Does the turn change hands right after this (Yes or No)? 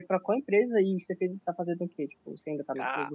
Yes